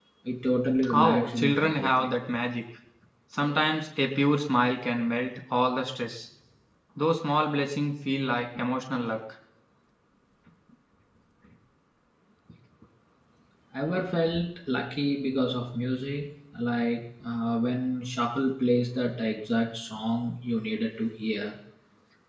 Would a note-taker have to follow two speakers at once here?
Yes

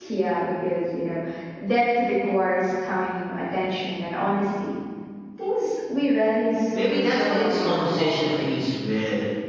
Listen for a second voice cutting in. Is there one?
Yes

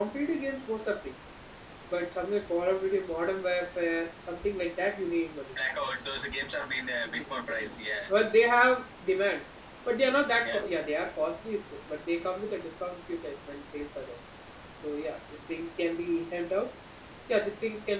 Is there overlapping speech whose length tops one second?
No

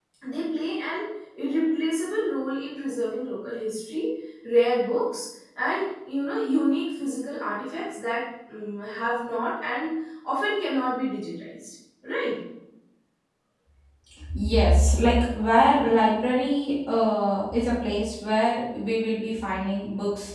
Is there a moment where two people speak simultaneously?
No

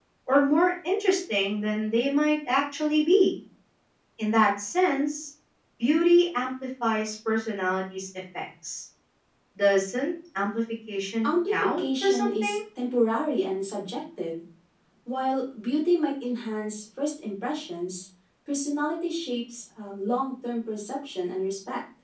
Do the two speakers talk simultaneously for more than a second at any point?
Yes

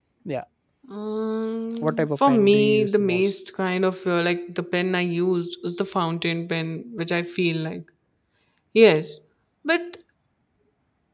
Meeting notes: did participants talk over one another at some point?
Yes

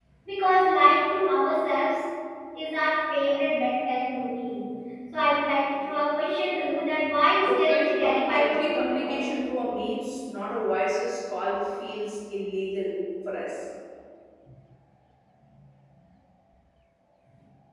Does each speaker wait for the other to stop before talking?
No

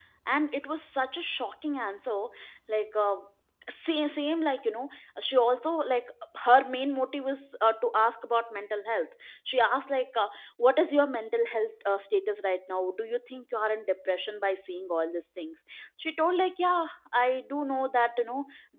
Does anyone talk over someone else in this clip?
No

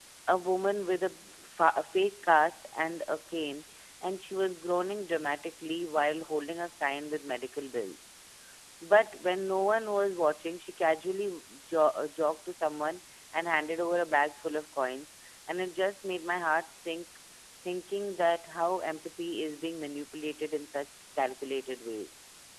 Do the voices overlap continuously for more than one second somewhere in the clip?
No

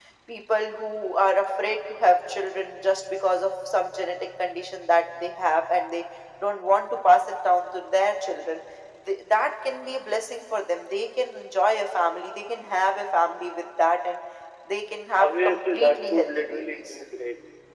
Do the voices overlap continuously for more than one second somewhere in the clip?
Yes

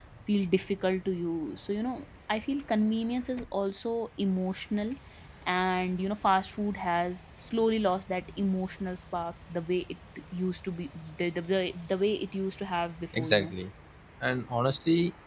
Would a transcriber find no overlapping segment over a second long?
Yes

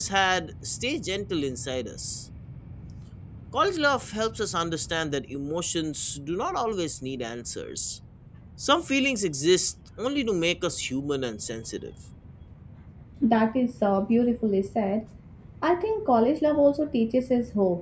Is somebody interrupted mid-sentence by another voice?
No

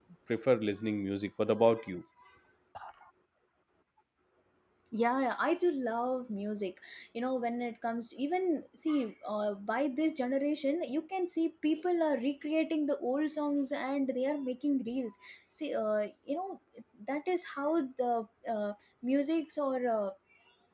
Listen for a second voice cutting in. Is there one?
No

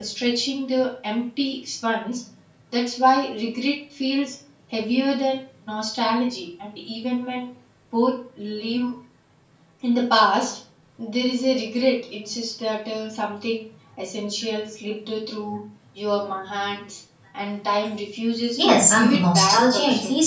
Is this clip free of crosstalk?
No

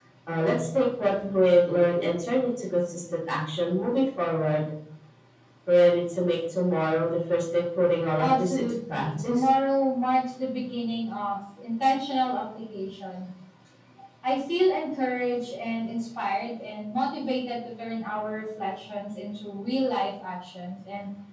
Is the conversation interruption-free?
No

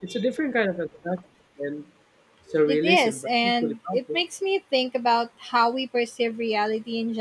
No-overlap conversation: No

